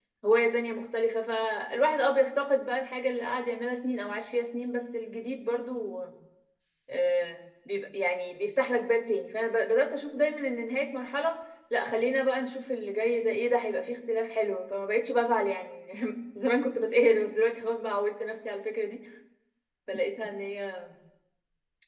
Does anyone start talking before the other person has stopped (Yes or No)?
No